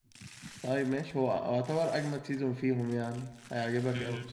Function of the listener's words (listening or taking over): taking over